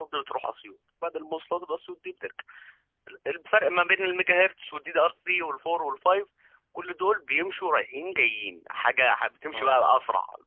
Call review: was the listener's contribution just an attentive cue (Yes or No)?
Yes